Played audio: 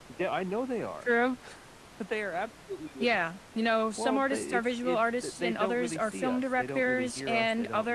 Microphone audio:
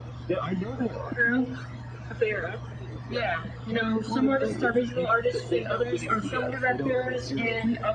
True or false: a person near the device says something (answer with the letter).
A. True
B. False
B